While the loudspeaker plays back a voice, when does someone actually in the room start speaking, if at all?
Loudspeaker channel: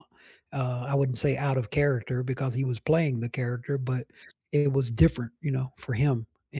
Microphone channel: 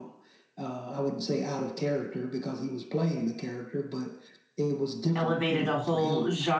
5.1 s

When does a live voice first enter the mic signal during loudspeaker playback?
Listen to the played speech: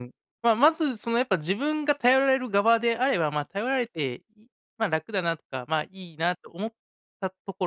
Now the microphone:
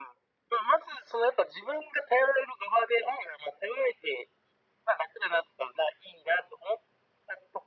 none

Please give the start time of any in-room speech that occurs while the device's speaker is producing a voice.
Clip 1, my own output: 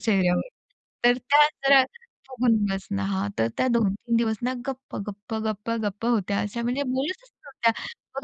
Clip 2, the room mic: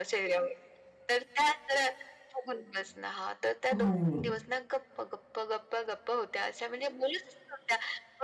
3.7 s

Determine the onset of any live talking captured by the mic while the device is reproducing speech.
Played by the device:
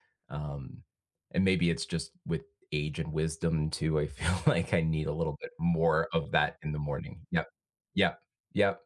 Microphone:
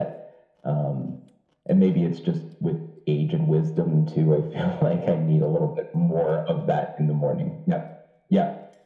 none

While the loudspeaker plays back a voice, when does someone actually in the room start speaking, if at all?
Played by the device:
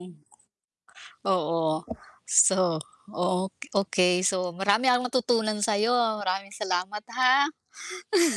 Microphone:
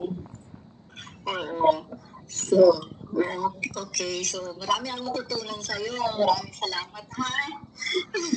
none

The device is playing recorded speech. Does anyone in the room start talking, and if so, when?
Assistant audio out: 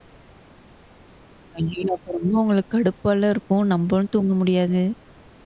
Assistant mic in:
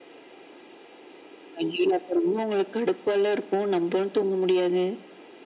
none

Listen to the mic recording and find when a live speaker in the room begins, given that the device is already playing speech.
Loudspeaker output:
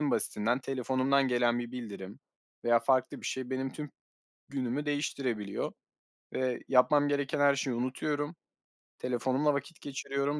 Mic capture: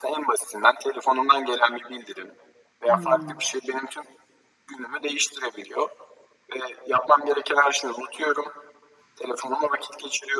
2.9 s

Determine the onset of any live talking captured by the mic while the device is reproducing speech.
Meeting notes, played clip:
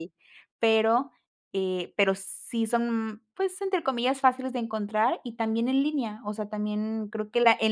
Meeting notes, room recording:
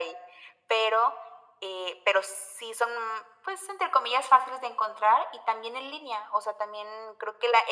none

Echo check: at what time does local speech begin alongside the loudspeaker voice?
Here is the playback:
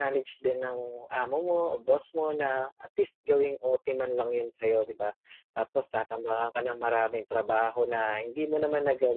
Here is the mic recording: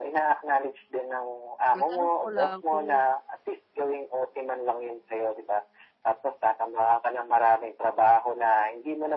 1.7 s

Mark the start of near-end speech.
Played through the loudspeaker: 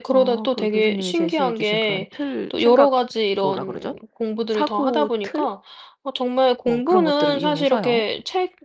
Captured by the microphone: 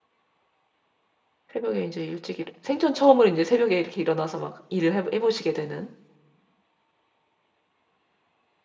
1.5 s

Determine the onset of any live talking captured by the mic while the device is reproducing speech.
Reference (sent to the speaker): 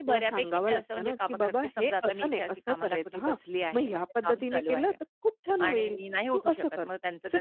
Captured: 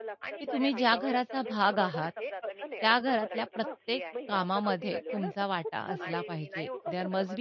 0.4 s

